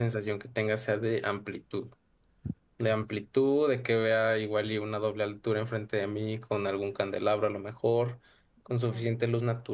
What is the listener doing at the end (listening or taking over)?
listening